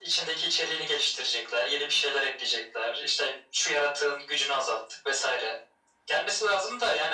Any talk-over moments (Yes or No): No